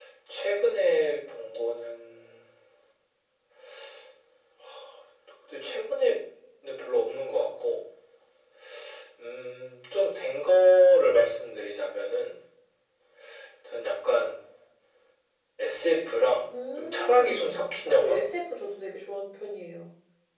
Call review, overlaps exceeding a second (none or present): present